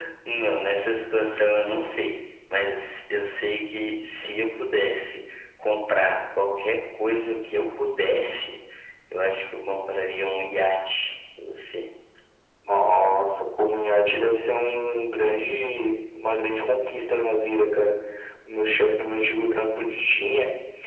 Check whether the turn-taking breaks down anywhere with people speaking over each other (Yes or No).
No